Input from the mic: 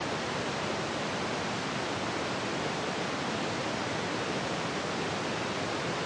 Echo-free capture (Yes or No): Yes